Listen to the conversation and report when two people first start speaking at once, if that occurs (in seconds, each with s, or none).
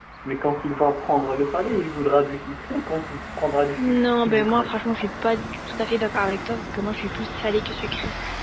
3.8 s